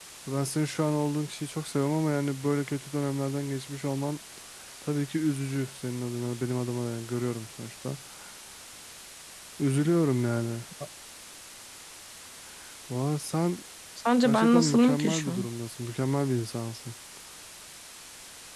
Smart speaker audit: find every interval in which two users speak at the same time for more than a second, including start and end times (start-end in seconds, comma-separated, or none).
14.2-15.4